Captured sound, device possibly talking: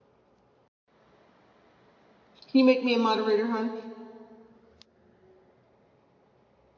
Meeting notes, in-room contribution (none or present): present